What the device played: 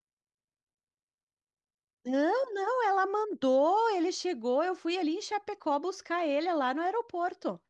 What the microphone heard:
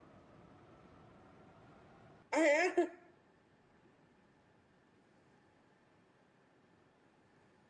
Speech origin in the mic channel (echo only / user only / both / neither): user only